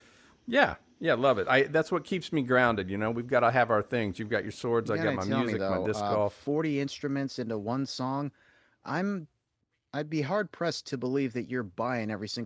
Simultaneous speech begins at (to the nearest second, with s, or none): 5 s